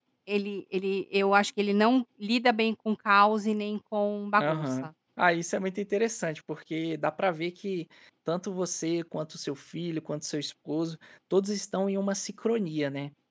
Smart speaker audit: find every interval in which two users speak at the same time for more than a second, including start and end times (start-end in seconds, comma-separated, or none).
none